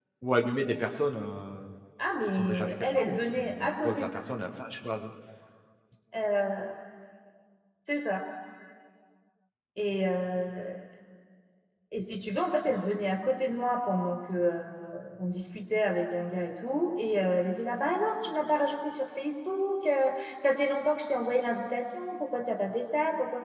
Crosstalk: present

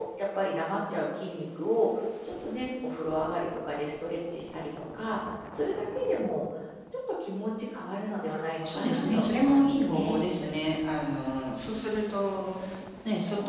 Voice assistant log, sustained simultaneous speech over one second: present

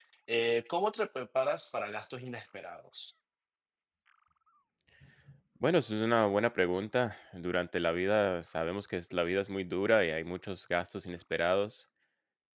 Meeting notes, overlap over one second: none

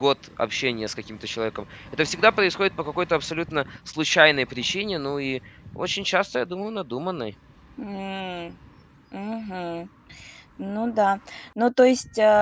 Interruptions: none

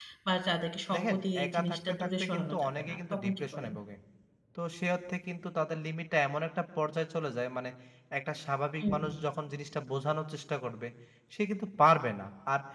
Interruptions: present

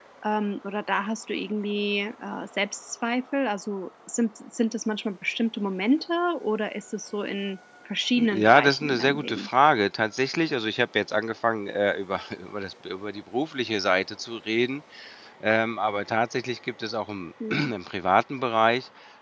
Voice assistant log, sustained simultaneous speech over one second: present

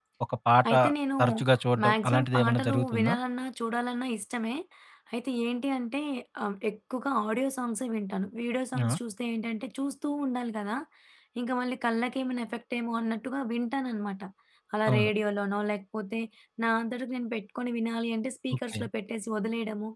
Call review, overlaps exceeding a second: present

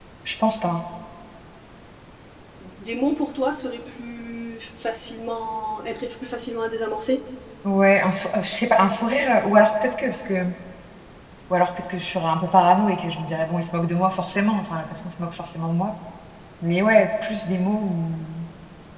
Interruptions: none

